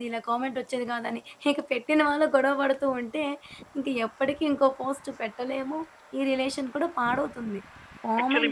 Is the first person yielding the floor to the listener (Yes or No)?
No